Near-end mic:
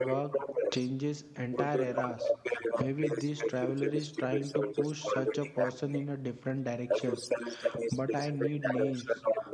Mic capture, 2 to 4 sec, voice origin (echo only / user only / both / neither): both